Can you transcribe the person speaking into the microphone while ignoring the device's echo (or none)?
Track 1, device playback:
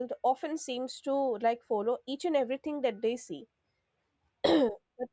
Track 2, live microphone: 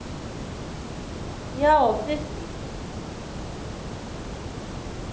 Yeah, obviously.